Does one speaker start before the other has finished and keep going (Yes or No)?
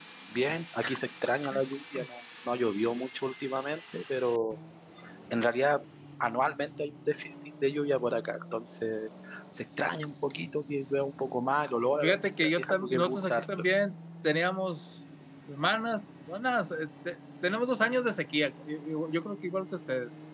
Yes